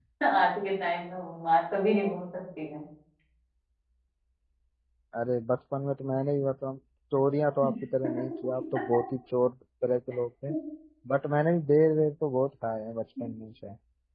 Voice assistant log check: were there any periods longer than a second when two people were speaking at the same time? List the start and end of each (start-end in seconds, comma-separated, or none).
none